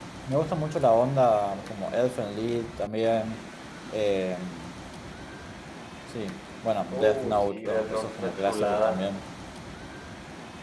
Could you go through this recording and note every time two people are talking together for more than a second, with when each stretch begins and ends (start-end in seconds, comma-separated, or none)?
6.9-9.0